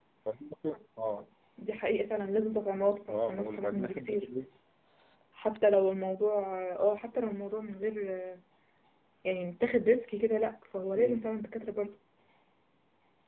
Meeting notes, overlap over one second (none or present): present